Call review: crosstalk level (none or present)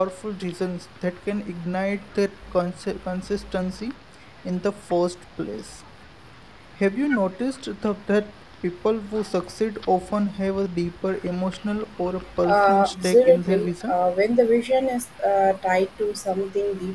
present